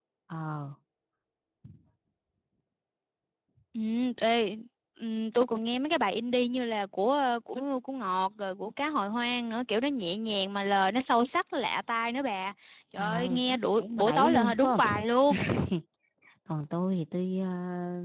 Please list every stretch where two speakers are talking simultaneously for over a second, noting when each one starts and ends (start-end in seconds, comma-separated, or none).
13.0-15.1